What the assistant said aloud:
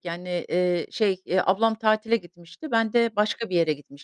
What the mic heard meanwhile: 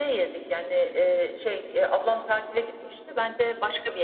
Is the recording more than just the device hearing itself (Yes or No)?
No